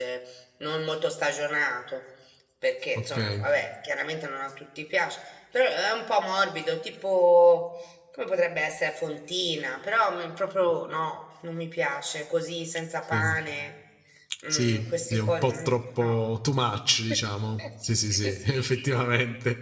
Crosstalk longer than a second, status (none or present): present